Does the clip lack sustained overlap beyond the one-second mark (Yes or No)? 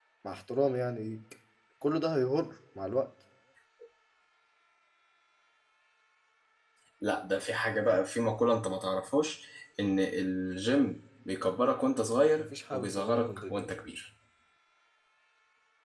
No